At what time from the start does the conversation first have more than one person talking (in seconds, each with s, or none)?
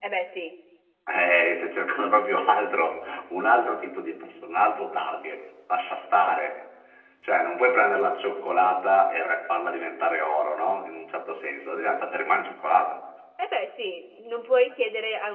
none